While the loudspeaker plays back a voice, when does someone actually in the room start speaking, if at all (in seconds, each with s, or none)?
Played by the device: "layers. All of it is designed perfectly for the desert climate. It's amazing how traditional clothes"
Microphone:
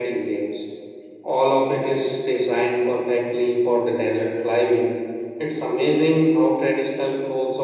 none